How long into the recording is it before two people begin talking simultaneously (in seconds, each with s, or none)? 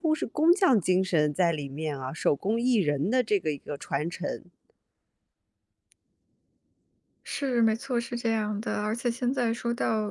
none